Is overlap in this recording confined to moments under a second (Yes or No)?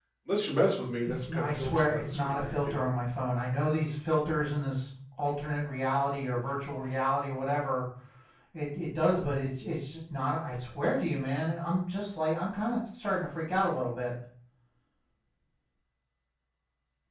No